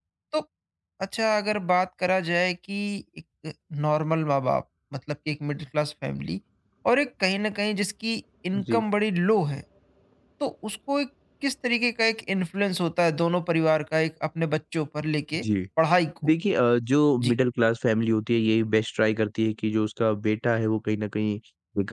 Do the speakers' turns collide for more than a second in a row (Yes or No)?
No